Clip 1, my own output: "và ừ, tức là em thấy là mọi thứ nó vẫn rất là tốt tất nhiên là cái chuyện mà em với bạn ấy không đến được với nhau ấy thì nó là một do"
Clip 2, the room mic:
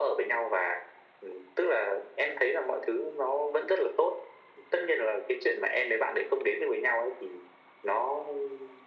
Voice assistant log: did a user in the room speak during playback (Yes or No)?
No